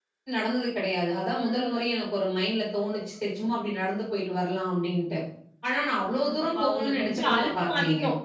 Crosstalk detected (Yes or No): Yes